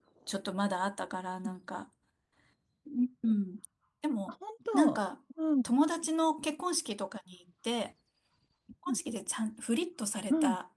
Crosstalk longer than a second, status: none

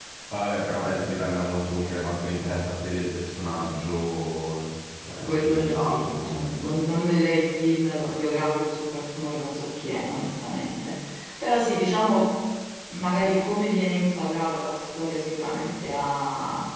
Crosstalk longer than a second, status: present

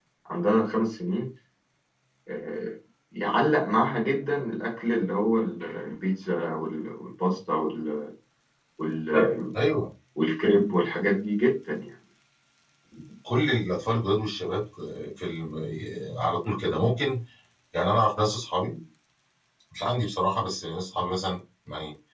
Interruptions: none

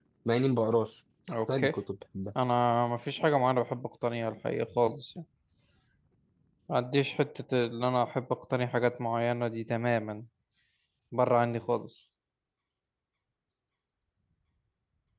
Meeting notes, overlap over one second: none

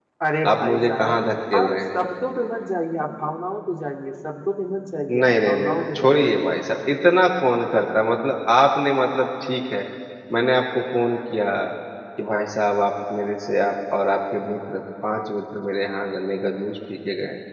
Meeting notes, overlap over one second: present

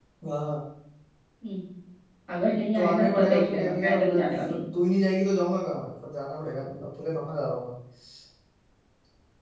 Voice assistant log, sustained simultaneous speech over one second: present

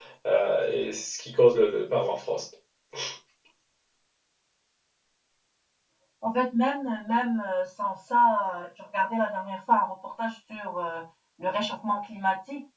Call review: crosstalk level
none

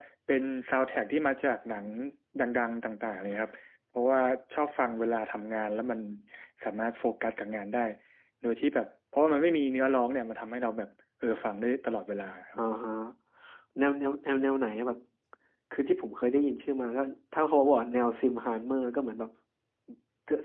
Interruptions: none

